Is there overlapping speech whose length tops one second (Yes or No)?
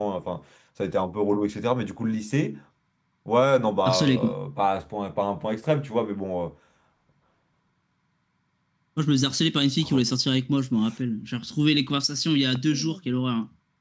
No